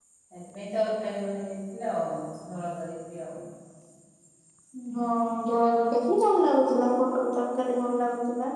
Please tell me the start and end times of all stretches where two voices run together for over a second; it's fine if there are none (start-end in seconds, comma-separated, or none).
none